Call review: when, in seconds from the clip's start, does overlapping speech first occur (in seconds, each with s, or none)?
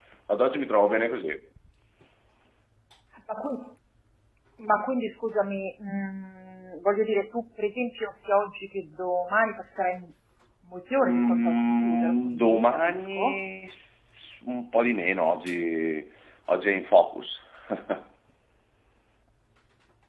11.0 s